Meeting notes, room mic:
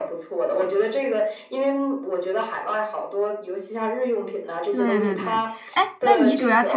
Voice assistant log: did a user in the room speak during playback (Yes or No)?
Yes